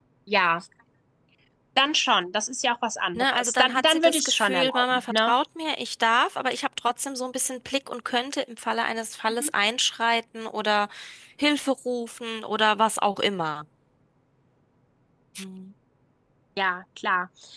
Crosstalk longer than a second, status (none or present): present